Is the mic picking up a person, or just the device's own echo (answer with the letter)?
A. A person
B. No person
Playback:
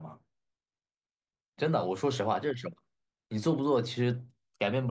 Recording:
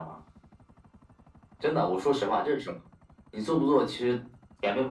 B